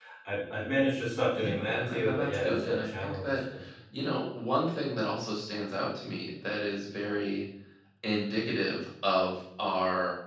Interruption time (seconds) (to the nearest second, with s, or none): 1 s